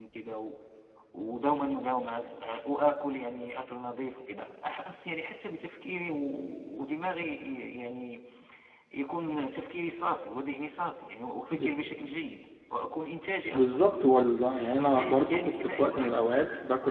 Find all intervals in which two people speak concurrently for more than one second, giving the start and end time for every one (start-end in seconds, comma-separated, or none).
14.7-16.3